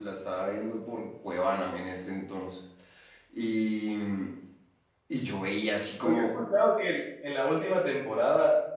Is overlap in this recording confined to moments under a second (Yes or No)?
Yes